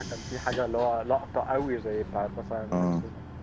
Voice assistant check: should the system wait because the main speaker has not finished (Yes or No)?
No